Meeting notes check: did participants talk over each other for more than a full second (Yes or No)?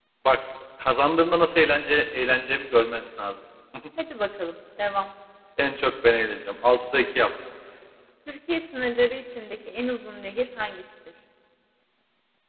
No